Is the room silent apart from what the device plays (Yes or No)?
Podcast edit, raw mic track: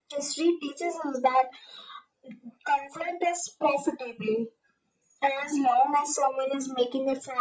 Yes